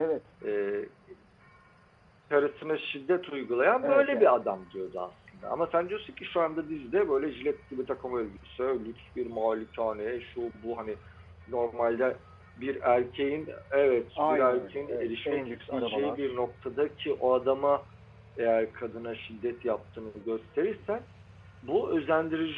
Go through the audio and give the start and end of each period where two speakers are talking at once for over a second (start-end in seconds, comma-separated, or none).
14.2-16.3